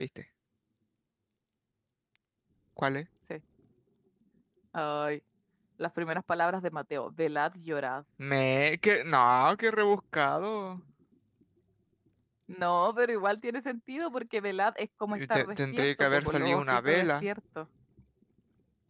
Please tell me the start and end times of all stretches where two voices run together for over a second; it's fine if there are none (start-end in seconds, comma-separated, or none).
15.1-17.3